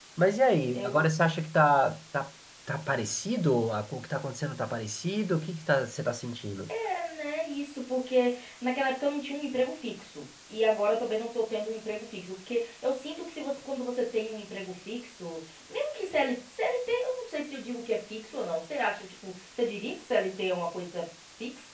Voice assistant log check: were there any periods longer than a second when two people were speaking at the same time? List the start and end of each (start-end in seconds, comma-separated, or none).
none